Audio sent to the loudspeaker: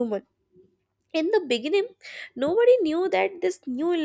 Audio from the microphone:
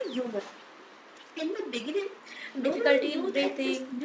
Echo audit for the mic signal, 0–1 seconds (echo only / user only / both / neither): echo only